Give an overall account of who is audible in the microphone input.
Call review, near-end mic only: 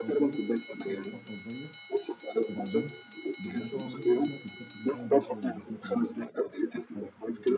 both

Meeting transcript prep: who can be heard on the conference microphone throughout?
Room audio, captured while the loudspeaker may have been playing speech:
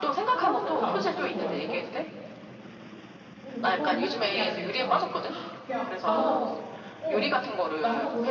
both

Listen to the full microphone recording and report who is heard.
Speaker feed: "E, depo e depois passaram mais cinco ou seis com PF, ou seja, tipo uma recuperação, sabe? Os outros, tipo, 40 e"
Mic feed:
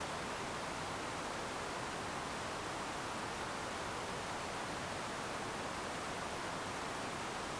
neither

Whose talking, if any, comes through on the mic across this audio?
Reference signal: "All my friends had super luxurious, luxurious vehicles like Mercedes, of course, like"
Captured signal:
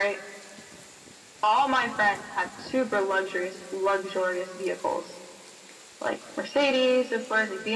echo only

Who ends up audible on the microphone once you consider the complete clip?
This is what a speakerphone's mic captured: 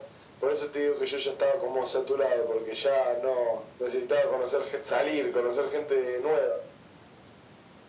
echo only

